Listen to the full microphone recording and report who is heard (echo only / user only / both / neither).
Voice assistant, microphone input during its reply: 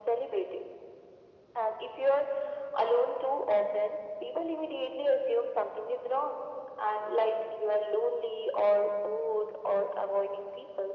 echo only